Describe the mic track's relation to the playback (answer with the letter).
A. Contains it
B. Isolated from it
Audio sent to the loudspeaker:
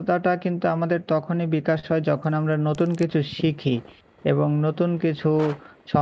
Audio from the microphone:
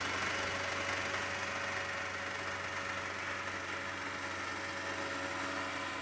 B